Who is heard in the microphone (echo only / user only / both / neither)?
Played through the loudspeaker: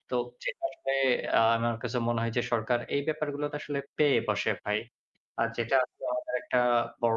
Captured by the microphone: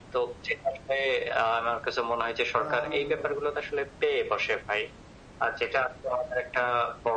both